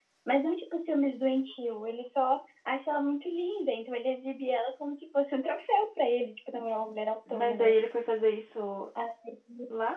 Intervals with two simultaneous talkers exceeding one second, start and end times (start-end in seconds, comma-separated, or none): none